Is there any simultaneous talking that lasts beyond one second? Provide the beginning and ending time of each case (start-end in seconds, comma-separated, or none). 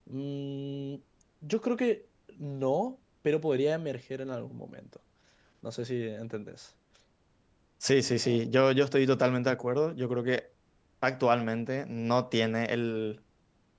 none